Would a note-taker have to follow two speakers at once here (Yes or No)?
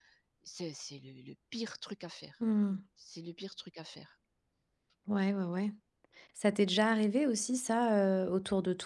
No